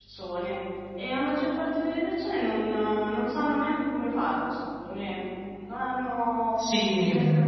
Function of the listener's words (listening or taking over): taking over